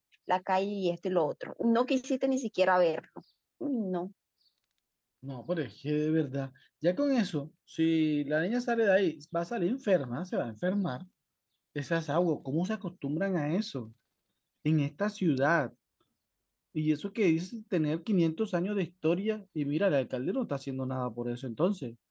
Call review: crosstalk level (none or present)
none